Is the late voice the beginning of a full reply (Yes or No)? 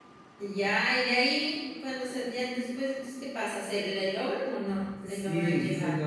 Yes